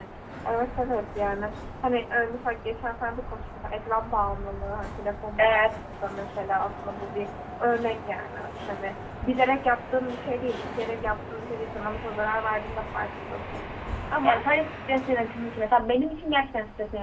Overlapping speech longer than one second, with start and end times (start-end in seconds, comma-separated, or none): none